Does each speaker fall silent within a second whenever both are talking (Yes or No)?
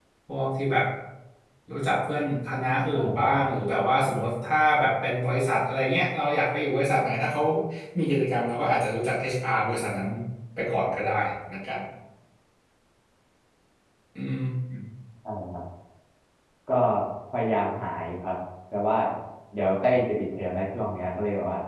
Yes